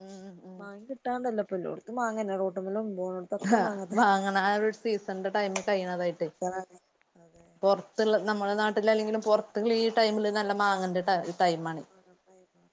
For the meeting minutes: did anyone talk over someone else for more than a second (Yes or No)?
No